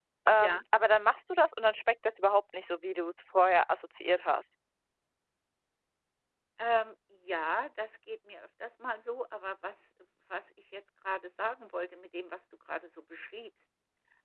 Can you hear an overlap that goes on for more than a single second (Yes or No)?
No